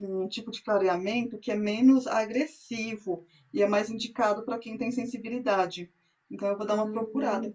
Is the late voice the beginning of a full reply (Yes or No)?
Yes